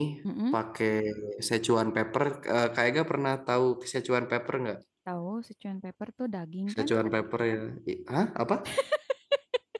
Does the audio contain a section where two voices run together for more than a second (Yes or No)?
No